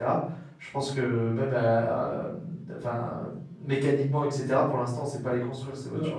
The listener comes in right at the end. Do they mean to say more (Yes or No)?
Yes